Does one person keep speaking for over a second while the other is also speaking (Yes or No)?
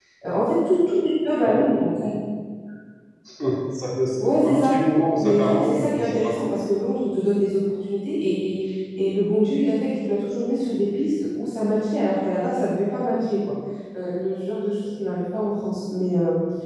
Yes